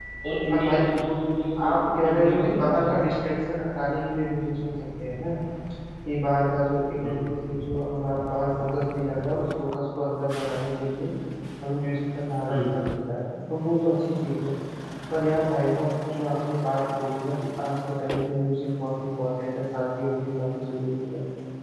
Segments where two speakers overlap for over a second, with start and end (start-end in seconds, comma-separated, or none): 1.7-3.1